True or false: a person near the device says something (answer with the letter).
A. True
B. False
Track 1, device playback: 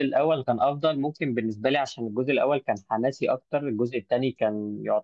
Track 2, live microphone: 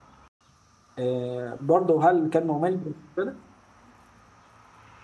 A